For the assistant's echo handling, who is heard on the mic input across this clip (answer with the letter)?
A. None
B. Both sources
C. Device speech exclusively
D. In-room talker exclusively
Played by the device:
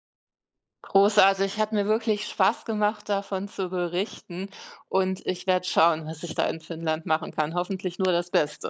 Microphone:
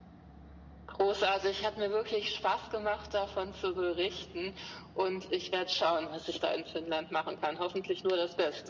C